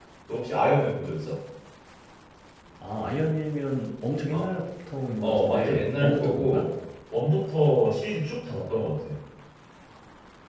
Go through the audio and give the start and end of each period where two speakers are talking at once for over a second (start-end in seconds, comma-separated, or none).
5.2-6.7